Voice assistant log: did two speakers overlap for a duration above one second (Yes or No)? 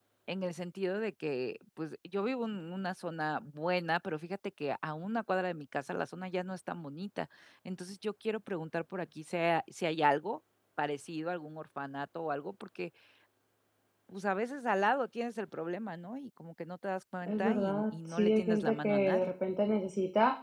Yes